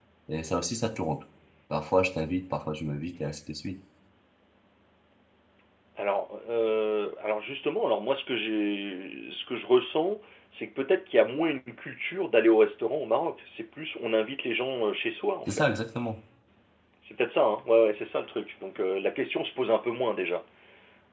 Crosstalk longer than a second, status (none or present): none